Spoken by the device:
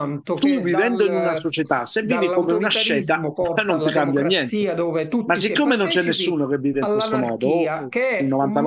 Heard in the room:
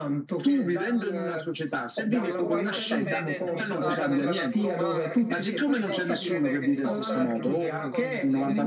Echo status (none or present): present